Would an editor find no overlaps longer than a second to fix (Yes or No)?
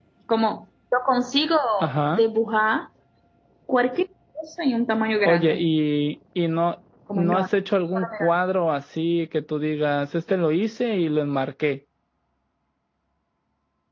Yes